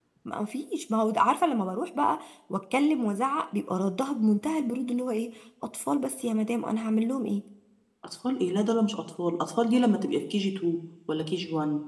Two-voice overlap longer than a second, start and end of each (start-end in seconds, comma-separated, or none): none